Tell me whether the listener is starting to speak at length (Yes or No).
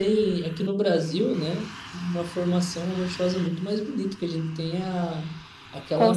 No